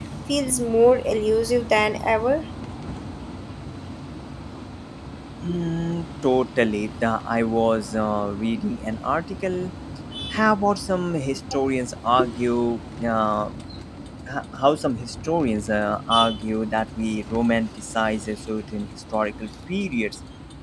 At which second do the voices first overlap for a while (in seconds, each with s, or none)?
none